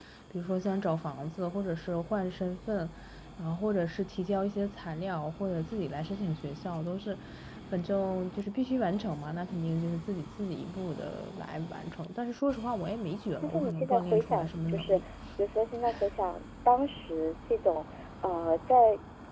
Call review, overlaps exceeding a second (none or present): present